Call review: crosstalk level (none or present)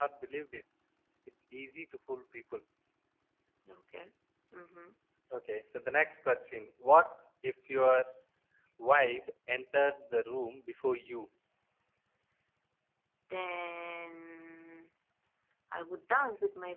none